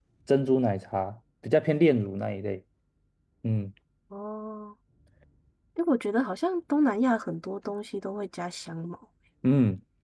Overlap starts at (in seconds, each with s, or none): none